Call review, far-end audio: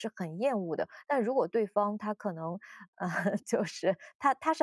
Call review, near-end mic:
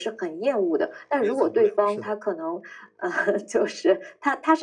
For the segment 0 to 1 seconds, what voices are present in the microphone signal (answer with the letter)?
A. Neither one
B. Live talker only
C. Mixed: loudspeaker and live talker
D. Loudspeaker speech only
D